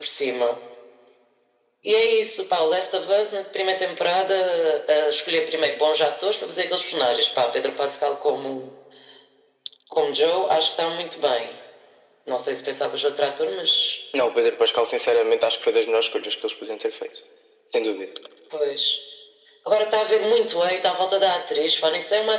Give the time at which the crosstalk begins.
none

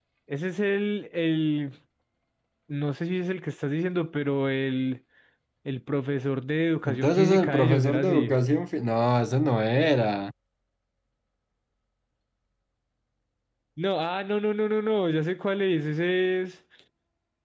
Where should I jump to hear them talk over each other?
6.8 s

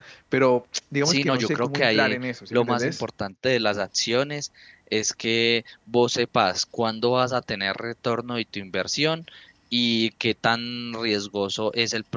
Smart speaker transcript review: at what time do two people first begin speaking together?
1.0 s

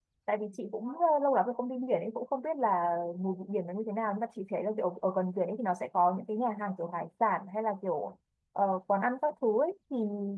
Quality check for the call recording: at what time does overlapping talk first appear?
none

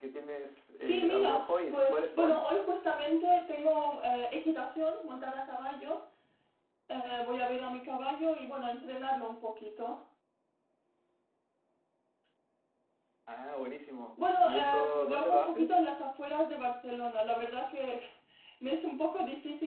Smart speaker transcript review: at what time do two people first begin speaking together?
0.8 s

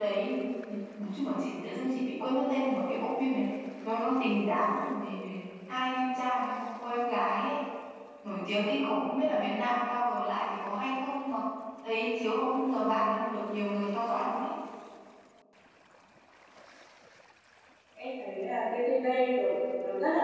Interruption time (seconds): none

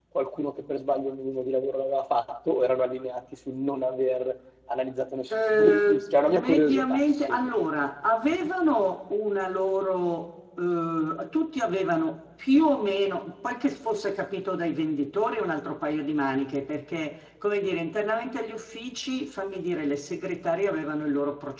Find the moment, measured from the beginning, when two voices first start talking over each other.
5.3 s

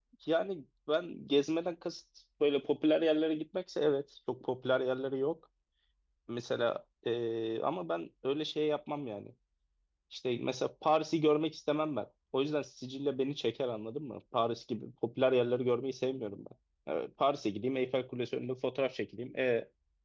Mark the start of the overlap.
none

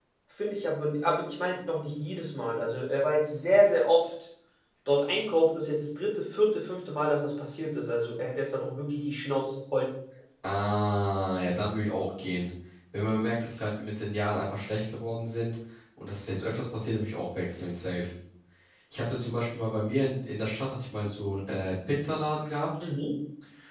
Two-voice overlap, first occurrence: none

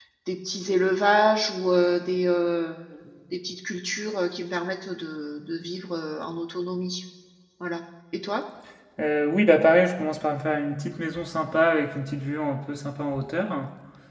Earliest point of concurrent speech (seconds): none

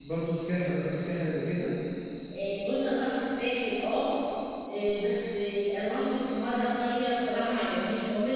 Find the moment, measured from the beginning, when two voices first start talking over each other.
none

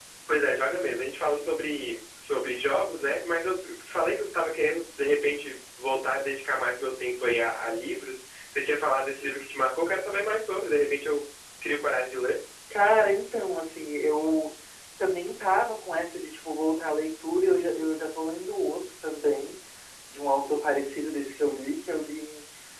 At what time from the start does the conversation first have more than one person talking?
none

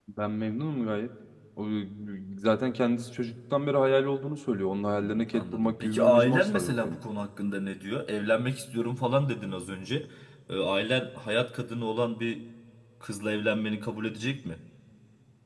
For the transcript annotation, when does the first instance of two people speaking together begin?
4.9 s

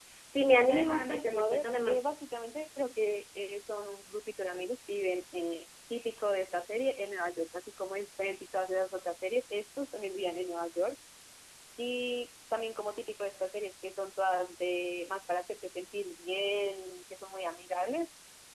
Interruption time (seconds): 0.6 s

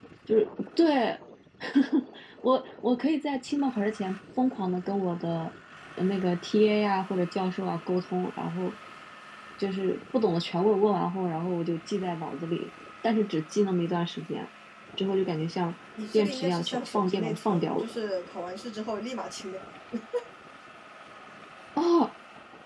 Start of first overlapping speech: 16.0 s

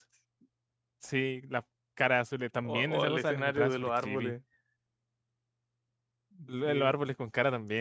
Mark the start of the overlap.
2.6 s

